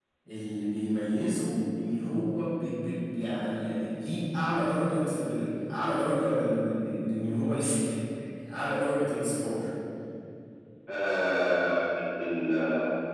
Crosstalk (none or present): none